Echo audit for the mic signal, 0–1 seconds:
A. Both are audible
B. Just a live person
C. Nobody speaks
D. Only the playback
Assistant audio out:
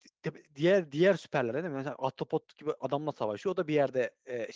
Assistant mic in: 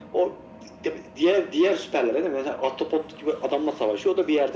D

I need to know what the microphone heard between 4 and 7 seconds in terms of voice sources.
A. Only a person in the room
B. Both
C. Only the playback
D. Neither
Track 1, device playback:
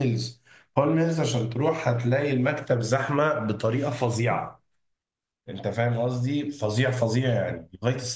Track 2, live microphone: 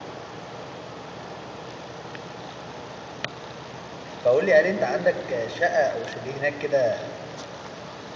A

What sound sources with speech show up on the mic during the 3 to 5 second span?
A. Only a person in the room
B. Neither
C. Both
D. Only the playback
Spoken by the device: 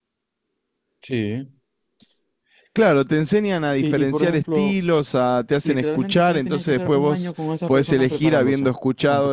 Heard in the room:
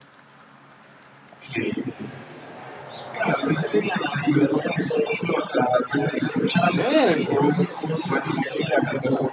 D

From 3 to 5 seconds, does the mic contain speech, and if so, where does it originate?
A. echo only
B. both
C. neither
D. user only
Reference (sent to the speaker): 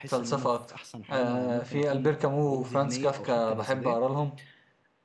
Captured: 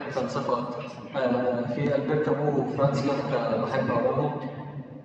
A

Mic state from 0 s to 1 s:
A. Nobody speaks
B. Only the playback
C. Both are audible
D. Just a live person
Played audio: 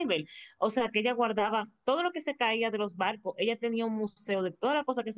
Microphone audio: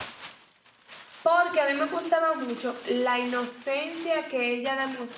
A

